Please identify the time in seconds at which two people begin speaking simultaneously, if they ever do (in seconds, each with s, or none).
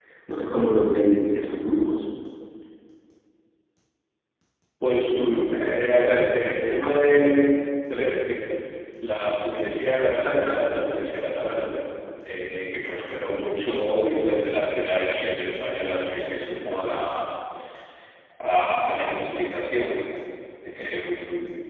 none